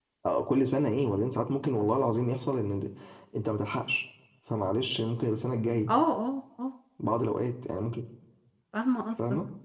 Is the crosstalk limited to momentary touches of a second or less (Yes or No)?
Yes